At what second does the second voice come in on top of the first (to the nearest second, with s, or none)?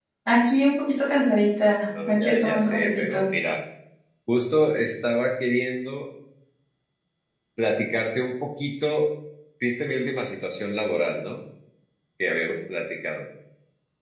2 s